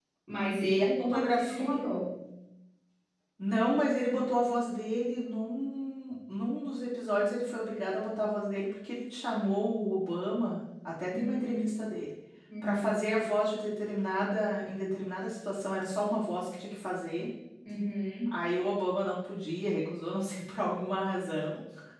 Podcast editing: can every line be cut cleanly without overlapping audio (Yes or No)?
No